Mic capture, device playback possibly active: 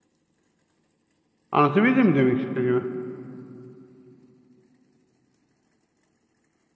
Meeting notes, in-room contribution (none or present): present